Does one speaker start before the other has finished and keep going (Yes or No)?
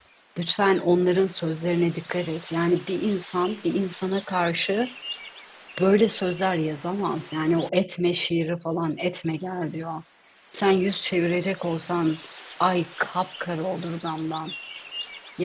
No